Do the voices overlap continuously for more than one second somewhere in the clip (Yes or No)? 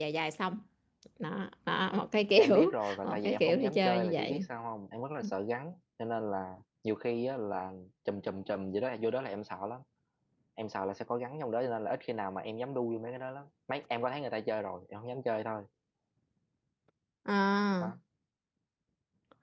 Yes